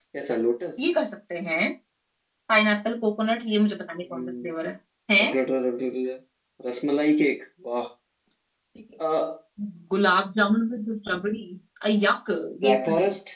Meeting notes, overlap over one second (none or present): none